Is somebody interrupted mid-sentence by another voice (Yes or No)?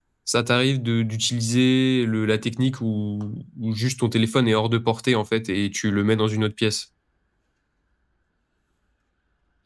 No